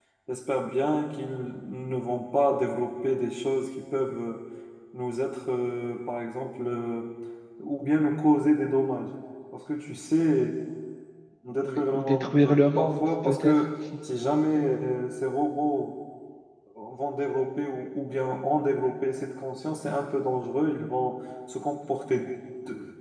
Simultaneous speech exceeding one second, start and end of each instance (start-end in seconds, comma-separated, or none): 11.6-13.6